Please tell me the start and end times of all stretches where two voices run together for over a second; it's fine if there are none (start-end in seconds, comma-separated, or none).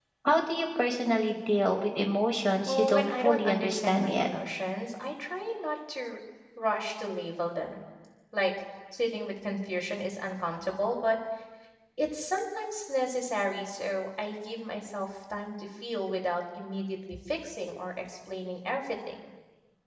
2.7-4.3